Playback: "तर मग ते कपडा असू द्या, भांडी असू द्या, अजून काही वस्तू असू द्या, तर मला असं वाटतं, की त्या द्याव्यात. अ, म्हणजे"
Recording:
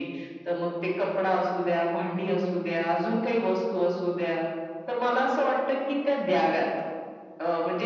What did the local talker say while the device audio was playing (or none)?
none